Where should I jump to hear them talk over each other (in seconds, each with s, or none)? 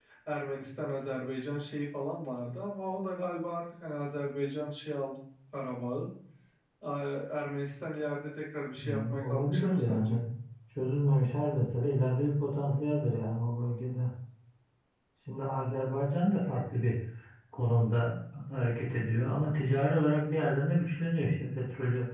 8.8 s